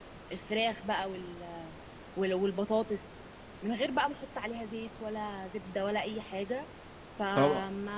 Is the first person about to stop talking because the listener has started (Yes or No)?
Yes